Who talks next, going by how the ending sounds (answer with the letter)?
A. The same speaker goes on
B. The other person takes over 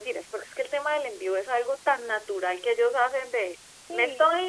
A